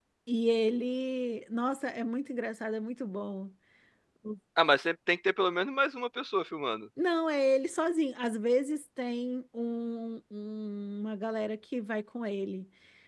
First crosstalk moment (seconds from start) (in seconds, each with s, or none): none